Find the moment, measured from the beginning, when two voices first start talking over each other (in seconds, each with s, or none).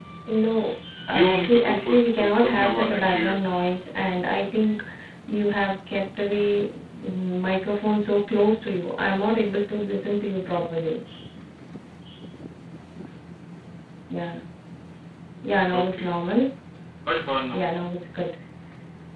1.1 s